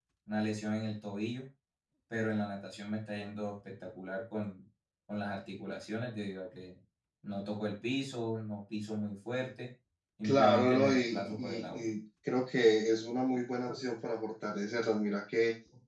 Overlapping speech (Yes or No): Yes